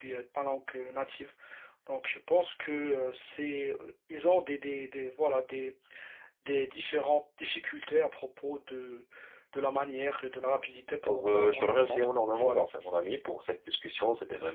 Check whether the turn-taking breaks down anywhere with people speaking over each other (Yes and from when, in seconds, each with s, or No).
Yes, from 11.1 s